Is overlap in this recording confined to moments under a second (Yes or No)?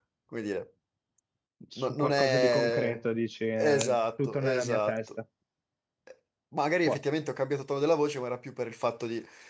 No